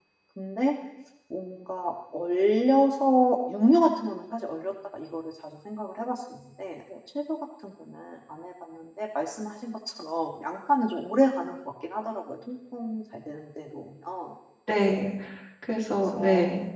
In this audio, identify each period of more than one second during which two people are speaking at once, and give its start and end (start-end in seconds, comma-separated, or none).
none